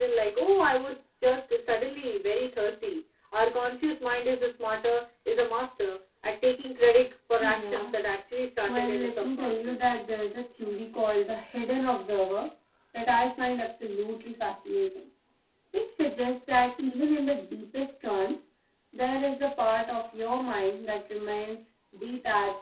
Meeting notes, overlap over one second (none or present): present